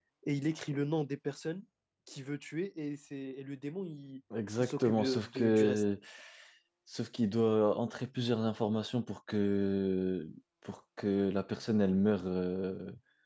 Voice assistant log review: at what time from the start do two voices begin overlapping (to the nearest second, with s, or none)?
5 s